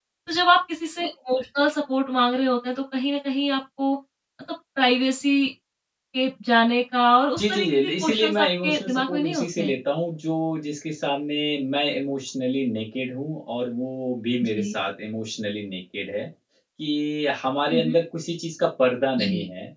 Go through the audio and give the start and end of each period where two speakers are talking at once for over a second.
7.4-9.7

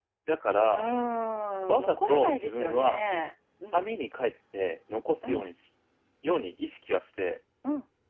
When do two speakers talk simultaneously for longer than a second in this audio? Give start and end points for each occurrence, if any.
1.7-3.0

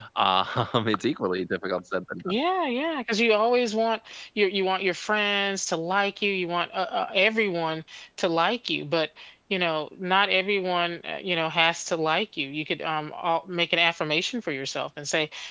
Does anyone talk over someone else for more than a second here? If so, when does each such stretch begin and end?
none

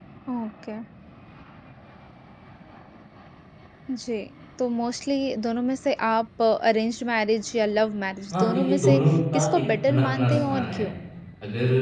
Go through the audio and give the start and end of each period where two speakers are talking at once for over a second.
8.3-10.9

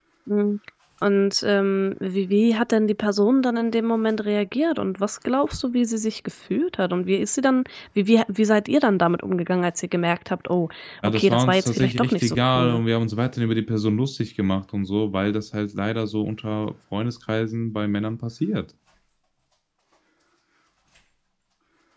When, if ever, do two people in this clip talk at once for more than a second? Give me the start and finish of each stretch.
11.0-12.8

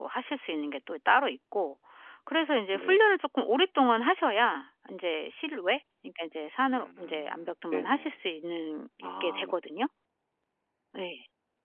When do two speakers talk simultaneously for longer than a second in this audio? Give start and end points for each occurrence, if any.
6.7-8.2

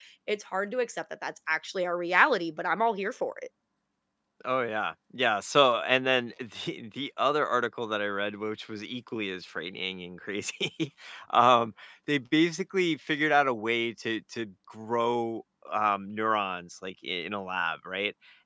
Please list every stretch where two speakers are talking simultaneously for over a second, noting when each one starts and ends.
none

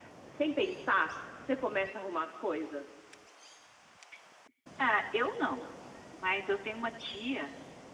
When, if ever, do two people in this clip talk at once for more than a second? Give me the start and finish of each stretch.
none

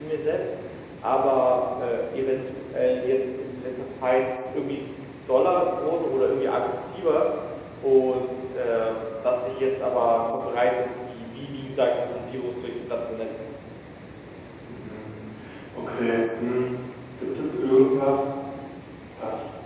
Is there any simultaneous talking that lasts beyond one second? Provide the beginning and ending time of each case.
none

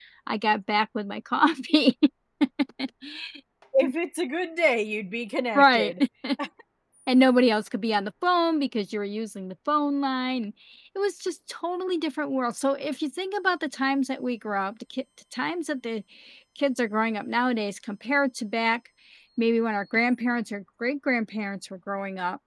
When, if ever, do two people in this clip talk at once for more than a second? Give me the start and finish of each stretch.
none

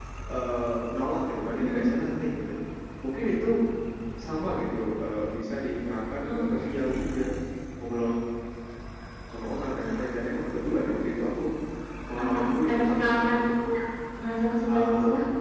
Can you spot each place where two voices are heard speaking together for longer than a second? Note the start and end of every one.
12.2-13.4

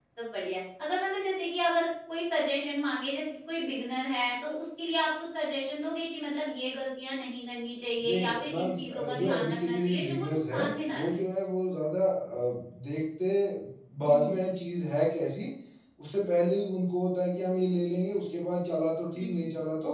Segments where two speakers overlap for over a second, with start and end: 8.1-11.2

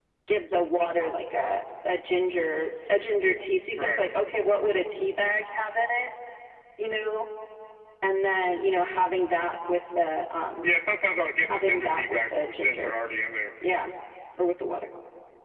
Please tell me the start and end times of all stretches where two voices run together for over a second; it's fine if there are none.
11.5-12.9

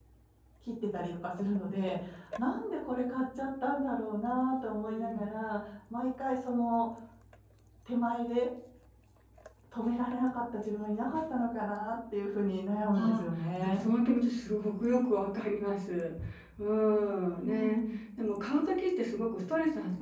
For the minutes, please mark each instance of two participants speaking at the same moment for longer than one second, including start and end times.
none

